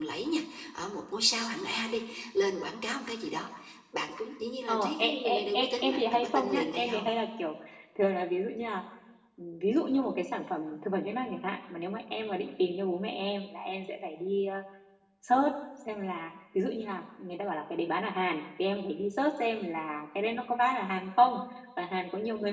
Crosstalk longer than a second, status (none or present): present